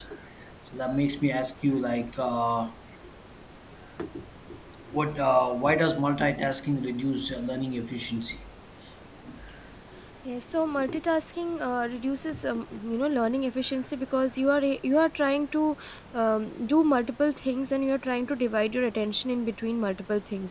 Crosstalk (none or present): none